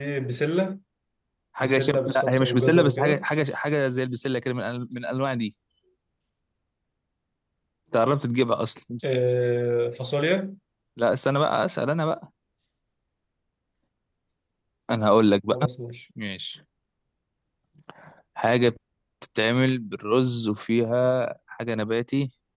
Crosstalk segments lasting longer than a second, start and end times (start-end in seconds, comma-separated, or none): 1.6-3.2